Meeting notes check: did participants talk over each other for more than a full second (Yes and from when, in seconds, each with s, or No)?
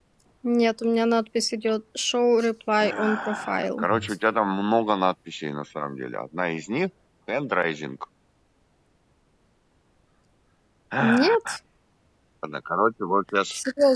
Yes, from 2.8 s